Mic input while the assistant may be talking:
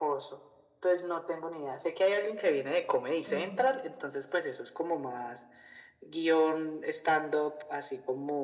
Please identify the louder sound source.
echo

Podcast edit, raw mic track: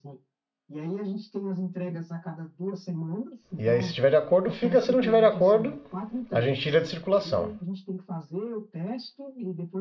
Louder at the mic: user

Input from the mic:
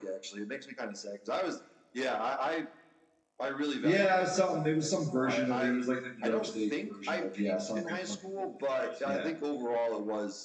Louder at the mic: user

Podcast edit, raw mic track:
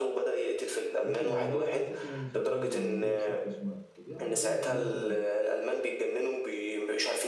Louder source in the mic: echo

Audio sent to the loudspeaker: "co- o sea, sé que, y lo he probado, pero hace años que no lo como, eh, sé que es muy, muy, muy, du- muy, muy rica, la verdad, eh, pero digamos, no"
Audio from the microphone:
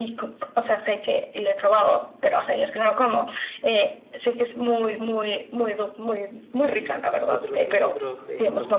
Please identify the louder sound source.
echo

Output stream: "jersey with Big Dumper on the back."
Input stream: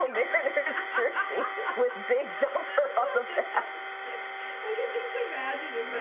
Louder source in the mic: echo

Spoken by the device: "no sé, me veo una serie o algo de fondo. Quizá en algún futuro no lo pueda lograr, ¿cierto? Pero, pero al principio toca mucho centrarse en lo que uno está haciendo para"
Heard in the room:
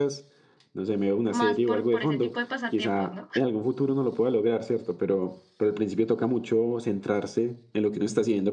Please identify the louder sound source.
echo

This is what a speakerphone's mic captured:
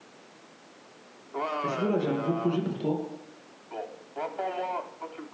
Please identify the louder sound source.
user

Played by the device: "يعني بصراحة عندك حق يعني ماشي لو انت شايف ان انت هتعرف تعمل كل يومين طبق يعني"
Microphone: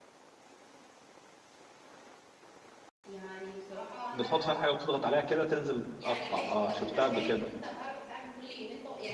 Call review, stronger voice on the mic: user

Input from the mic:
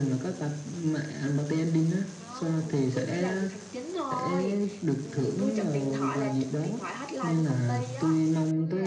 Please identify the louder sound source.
echo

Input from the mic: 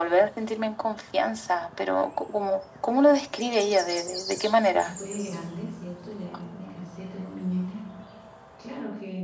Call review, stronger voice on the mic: echo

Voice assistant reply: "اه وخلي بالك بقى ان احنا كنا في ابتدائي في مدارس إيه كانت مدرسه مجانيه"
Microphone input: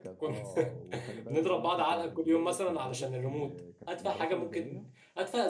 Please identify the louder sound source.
user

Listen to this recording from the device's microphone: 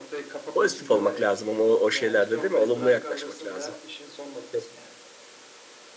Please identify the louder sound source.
user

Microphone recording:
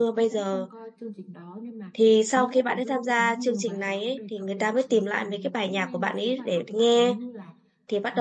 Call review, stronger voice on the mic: user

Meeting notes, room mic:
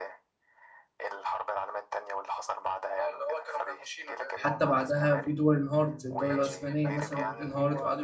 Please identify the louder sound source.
user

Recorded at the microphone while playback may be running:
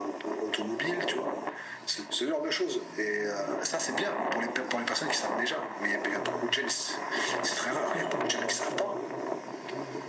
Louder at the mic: echo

